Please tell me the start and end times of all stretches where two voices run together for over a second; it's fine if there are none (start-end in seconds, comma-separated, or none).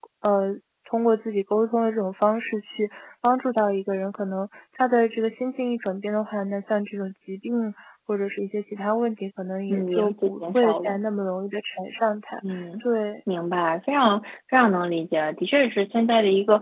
9.7-11.0